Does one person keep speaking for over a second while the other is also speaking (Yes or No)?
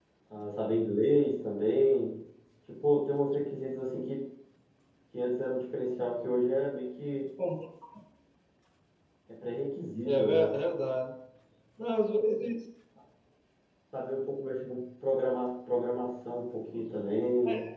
No